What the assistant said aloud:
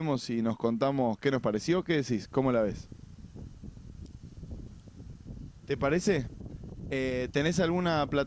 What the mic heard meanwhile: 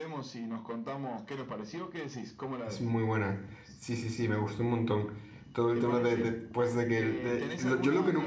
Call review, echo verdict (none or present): present